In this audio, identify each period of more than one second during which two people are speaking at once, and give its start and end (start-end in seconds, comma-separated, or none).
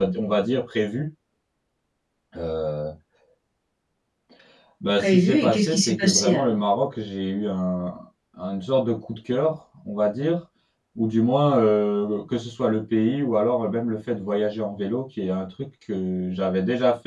5.0-6.6